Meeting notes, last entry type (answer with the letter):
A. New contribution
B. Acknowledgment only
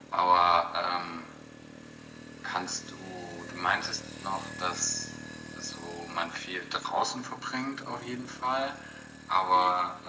B